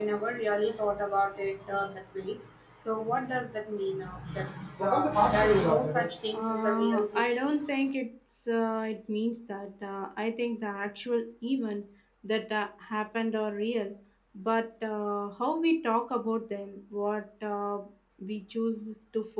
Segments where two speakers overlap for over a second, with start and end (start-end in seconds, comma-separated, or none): 6.3-7.6